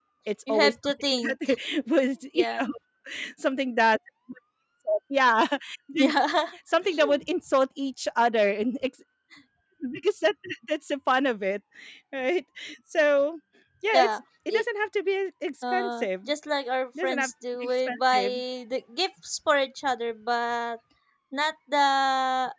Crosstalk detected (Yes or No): Yes